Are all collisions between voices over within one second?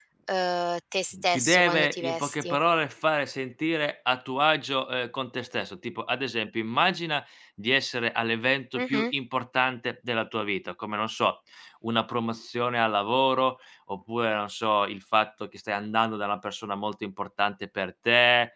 No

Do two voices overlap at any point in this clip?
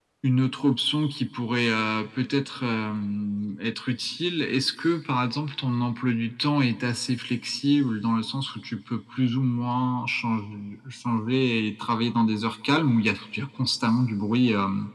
No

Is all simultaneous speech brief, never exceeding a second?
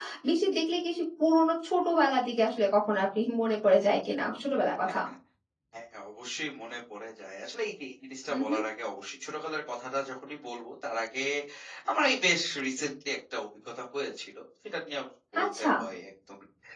Yes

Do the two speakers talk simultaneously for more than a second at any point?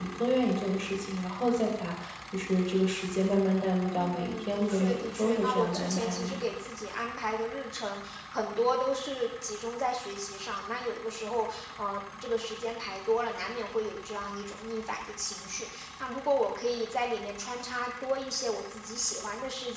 Yes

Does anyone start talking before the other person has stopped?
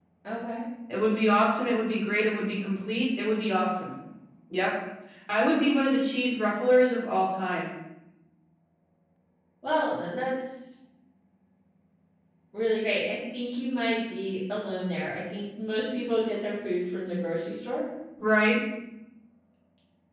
No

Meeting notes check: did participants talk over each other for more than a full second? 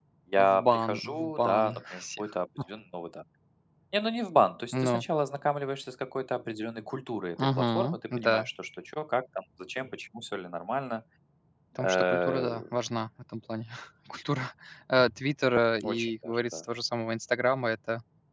Yes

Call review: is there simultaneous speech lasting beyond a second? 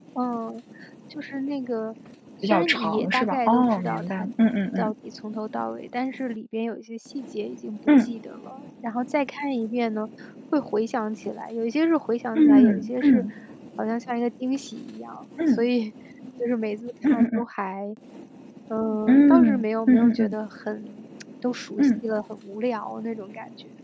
Yes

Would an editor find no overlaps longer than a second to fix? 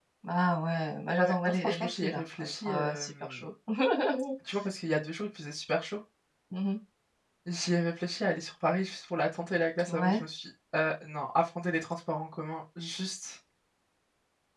No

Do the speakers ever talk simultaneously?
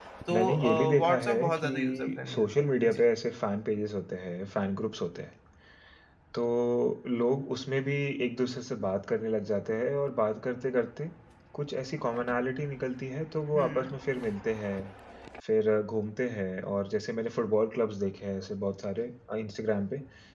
Yes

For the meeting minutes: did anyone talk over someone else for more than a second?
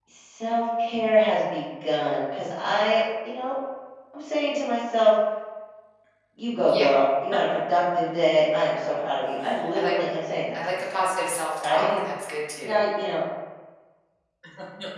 No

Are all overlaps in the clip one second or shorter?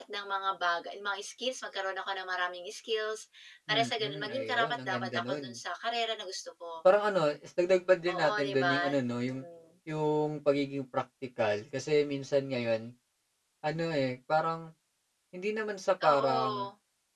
No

